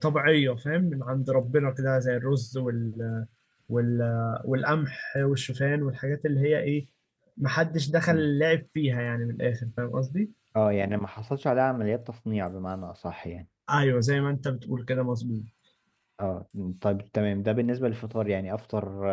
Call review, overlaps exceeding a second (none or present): none